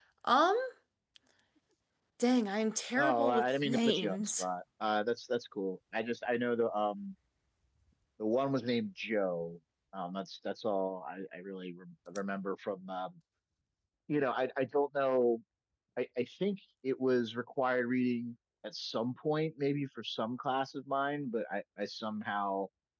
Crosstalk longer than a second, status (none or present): present